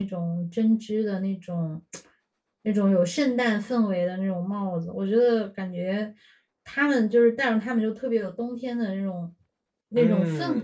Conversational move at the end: taking over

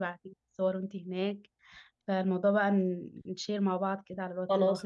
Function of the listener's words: taking over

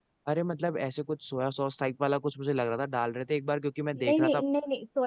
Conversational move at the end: taking over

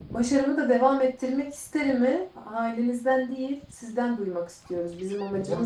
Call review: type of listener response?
taking over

